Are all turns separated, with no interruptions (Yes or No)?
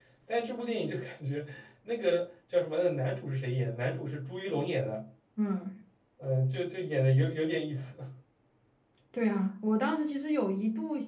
Yes